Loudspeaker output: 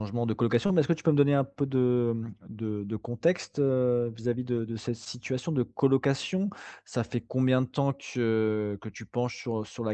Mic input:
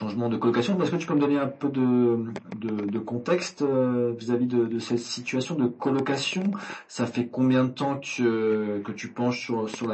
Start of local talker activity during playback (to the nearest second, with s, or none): none